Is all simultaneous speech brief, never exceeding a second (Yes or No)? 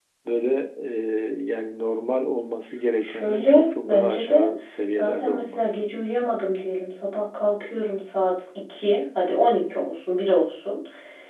No